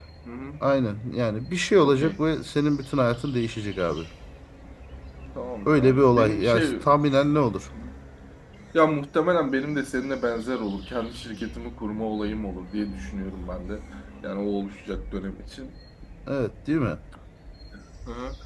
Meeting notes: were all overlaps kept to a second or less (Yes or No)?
No